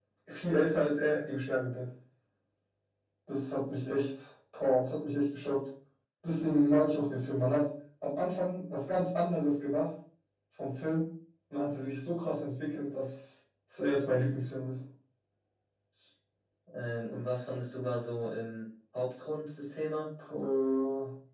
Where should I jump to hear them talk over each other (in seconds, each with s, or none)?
none